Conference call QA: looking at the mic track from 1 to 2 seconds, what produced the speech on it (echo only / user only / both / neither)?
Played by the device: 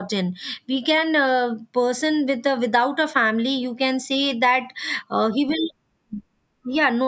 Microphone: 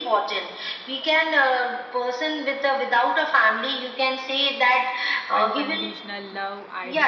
echo only